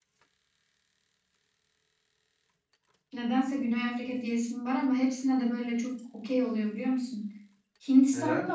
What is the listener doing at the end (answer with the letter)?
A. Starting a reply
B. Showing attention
A